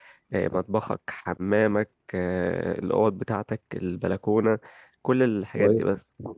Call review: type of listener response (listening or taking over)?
taking over